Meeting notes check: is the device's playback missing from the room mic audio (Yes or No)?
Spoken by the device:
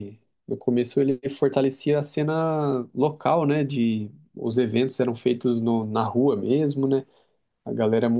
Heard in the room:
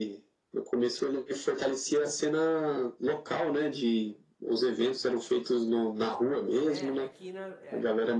No